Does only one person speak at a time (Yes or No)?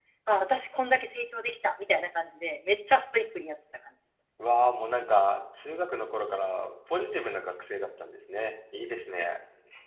Yes